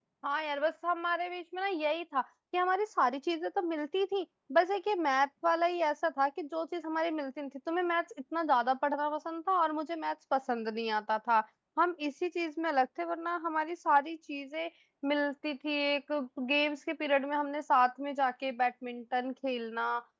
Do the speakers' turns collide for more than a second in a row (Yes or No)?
No